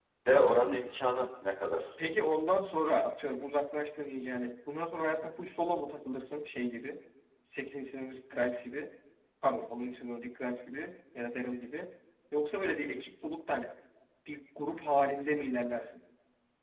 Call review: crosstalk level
none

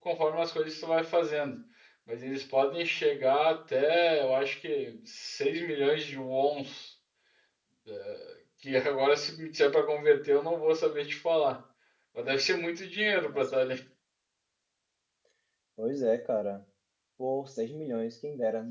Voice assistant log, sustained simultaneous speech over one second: none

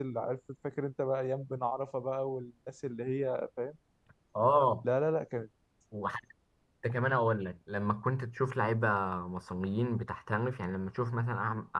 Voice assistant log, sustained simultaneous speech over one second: none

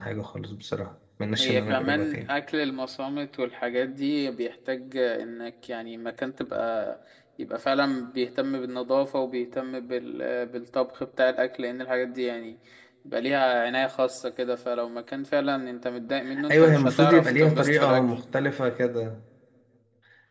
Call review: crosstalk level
present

